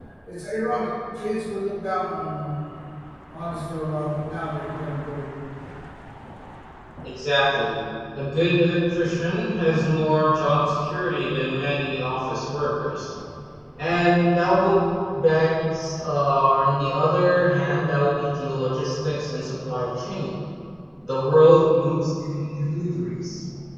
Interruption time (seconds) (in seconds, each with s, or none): none